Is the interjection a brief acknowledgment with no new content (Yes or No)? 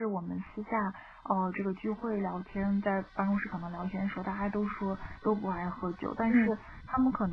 Yes